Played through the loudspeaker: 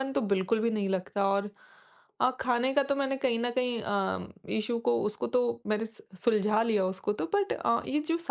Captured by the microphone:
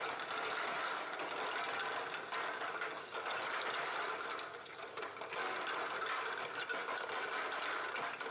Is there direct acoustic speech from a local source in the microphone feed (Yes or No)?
No